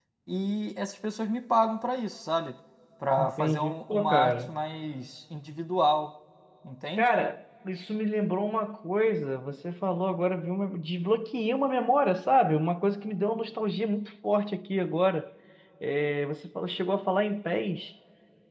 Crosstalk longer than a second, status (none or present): present